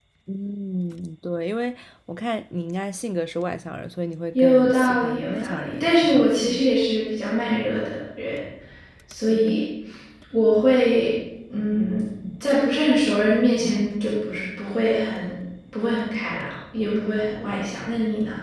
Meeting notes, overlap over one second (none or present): present